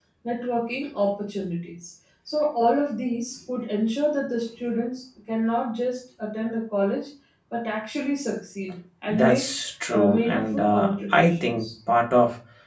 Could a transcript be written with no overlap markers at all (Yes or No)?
No